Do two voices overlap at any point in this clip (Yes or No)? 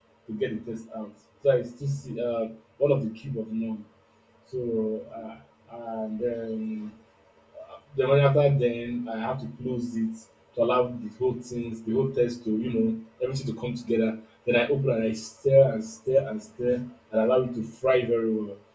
No